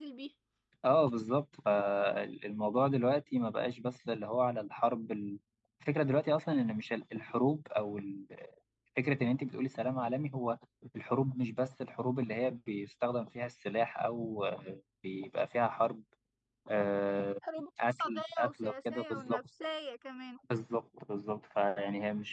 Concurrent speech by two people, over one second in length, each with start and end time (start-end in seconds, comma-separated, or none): 17.8-19.4